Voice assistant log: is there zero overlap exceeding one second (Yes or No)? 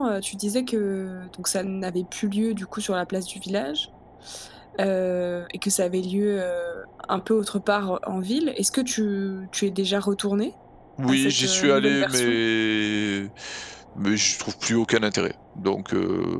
No